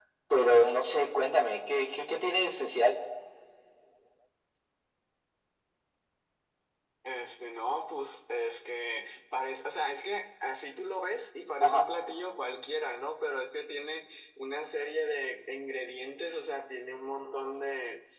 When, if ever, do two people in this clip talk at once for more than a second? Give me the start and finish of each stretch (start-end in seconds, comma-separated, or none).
none